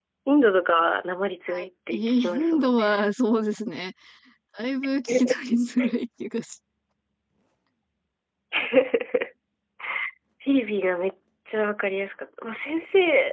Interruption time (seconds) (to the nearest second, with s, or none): 1 s